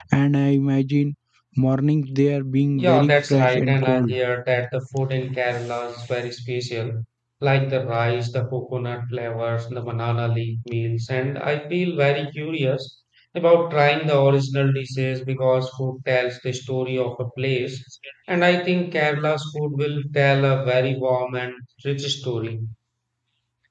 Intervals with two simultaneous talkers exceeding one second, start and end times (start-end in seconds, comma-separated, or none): 2.8-4.1